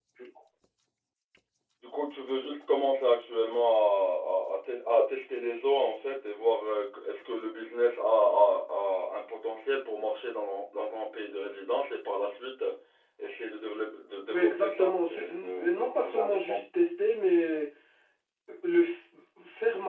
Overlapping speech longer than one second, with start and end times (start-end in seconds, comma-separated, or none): 14.3-16.6